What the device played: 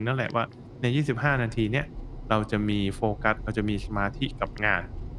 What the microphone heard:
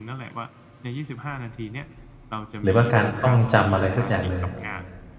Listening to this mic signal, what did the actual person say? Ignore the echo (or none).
หรือว่าการท่องจำ อะไรสักอย่างหนึ่ง